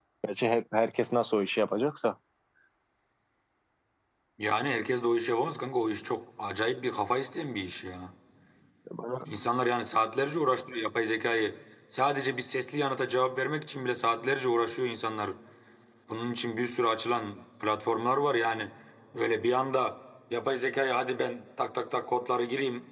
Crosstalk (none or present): none